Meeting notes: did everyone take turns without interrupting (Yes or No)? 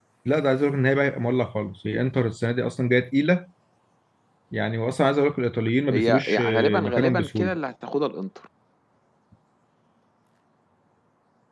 No